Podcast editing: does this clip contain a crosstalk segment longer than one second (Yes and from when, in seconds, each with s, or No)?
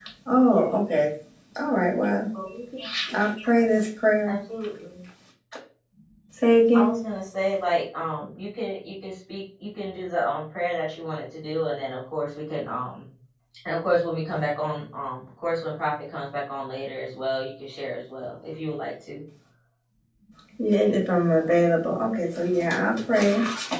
No